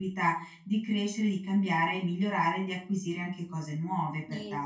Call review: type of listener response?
taking over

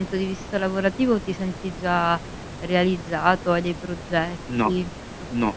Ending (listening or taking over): taking over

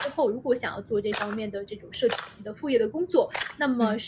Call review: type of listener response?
listening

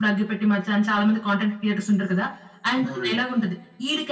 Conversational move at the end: listening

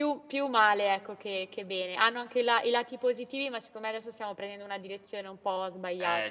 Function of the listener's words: taking over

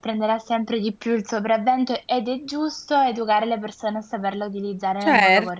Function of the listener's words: taking over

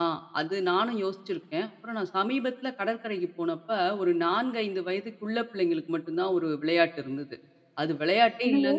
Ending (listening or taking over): listening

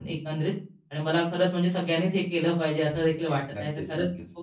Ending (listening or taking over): listening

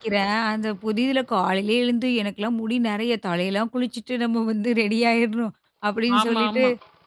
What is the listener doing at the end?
listening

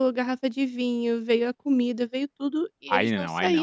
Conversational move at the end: taking over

